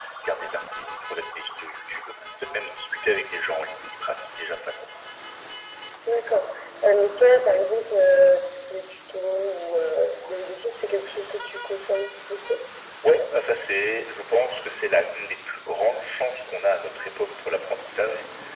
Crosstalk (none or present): none